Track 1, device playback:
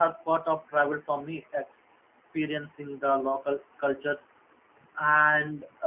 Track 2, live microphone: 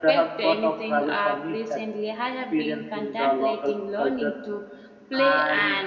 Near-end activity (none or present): present